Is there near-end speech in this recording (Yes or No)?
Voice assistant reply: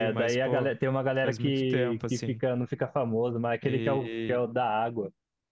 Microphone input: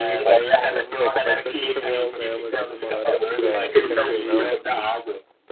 Yes